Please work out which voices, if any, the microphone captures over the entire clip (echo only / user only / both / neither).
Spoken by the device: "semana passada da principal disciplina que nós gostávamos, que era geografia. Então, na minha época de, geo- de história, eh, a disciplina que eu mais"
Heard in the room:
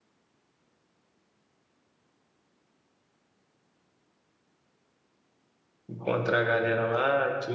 user only